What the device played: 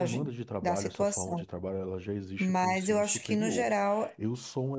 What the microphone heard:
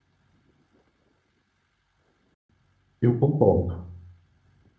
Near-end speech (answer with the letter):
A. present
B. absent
A